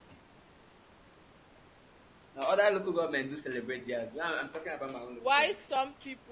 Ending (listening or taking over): taking over